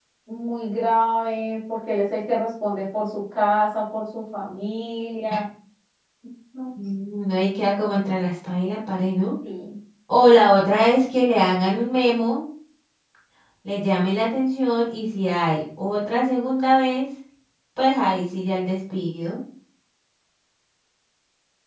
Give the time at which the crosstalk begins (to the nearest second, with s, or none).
none